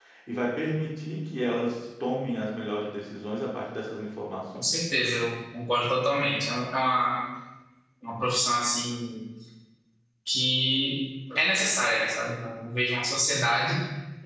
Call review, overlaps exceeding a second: none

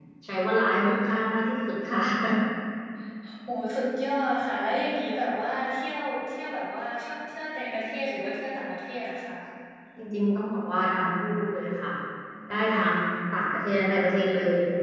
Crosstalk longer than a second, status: none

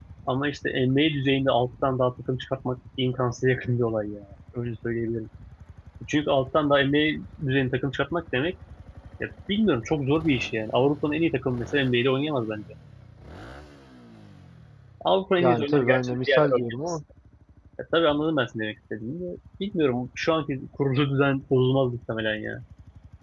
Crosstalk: present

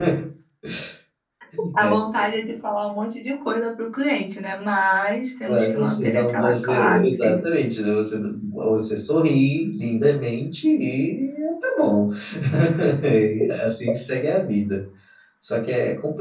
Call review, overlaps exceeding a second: present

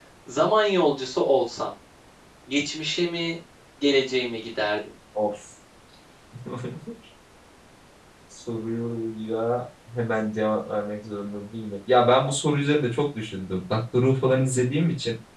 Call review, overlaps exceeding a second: none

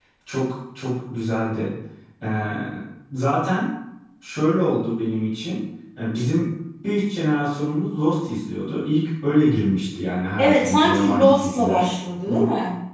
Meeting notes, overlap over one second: present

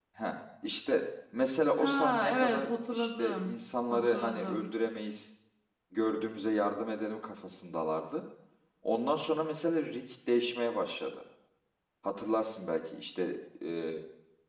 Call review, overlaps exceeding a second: present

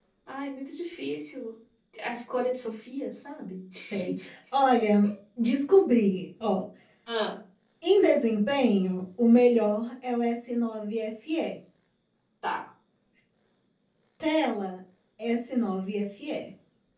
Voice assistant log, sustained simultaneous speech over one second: none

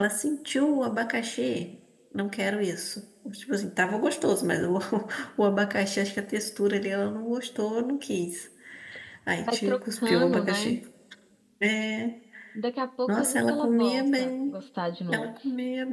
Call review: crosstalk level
present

